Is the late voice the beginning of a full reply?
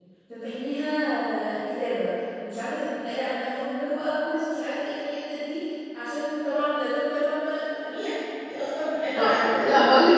Yes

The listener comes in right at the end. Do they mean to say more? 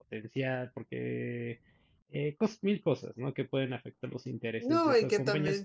Yes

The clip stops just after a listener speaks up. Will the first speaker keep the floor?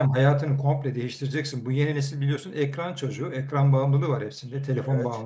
Yes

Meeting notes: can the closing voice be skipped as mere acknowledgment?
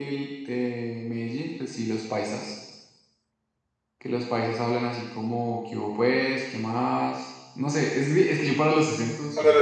No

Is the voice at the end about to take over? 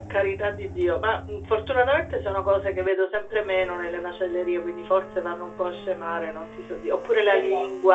No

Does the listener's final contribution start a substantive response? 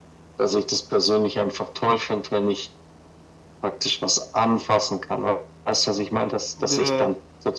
No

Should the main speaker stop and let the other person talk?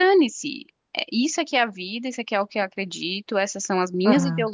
No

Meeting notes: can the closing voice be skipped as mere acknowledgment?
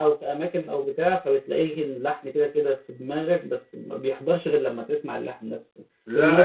Yes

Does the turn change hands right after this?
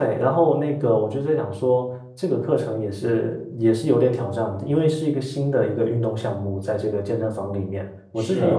No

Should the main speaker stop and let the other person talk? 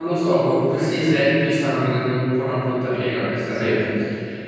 No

